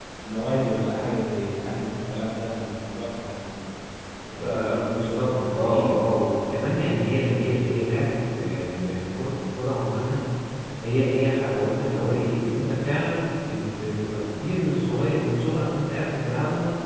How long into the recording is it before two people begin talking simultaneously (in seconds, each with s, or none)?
4.4 s